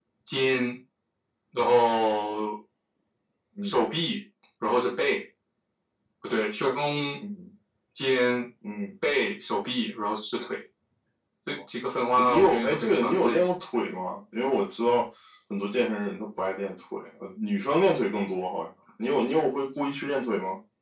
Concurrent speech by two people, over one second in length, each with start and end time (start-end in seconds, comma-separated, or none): 12.2-13.5